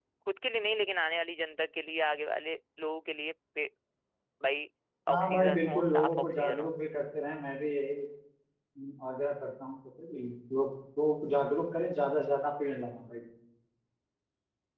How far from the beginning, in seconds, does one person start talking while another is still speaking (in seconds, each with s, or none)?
5.1 s